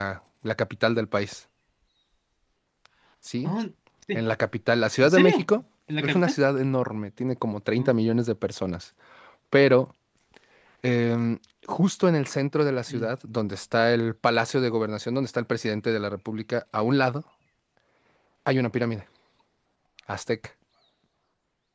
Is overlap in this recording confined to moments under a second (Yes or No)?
Yes